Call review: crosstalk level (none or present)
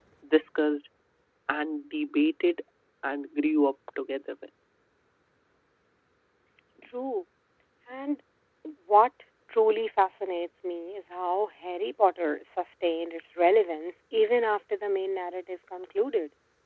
none